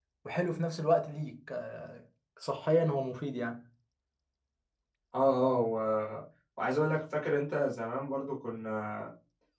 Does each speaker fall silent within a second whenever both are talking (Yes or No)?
Yes